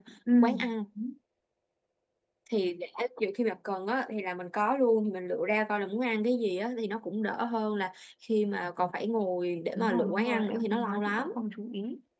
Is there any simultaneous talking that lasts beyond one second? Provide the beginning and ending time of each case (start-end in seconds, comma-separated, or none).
9.8-11.3